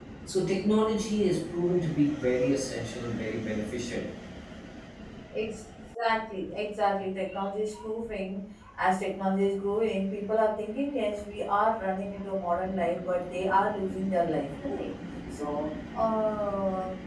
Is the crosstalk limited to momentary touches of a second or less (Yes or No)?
Yes